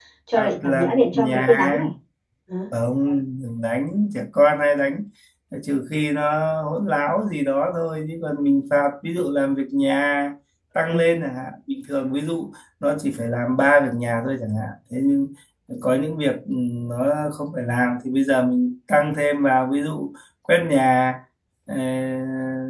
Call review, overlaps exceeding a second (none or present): present